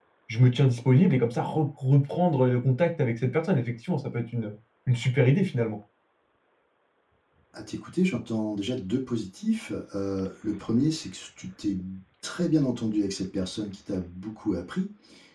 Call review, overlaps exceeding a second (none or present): none